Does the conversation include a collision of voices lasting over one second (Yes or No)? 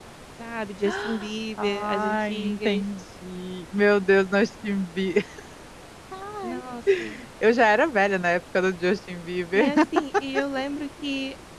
Yes